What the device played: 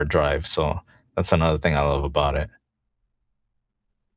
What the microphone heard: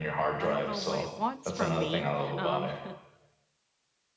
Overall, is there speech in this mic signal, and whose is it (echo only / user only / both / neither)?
both